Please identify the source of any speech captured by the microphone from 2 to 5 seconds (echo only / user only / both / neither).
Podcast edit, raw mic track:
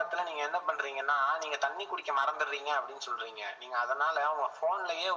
echo only